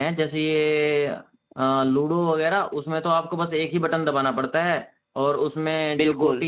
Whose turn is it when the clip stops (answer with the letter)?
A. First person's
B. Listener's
A